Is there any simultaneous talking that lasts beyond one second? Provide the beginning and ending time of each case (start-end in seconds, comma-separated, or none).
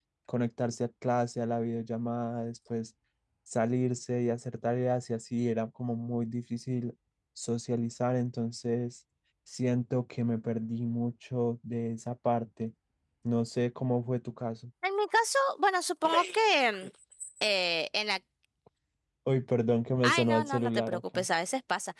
20.0-21.2